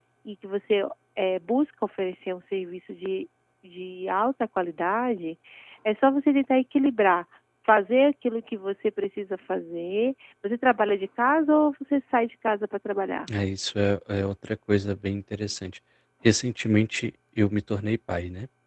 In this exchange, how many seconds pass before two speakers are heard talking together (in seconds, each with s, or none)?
none